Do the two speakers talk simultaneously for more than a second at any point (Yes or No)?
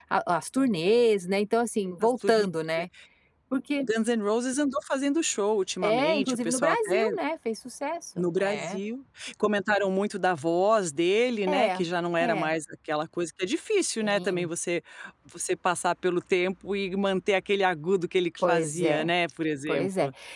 Yes